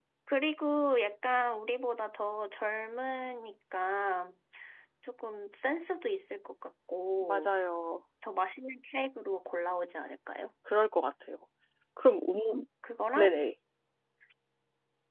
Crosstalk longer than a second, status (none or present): none